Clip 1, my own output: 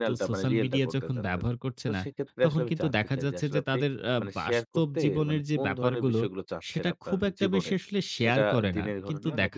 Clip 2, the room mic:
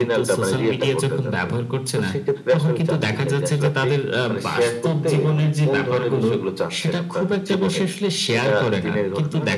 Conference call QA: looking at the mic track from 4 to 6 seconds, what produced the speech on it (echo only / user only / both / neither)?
echo only